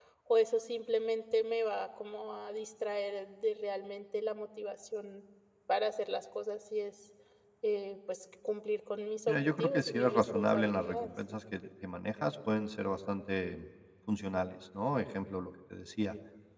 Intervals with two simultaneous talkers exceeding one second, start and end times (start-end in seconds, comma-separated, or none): 9.3-11.1